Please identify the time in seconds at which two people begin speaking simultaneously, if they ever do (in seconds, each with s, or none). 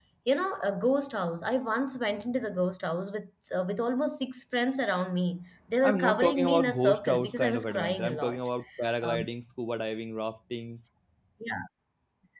5.8 s